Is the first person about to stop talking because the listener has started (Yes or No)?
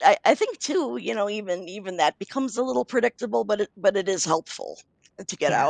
Yes